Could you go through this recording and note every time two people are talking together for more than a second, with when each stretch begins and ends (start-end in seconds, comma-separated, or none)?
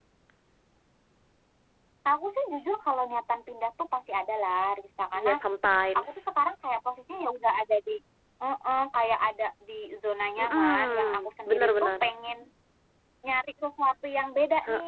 10.4-11.9